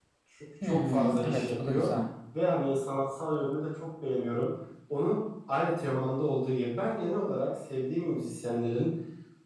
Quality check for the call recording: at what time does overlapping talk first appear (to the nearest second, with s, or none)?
1 s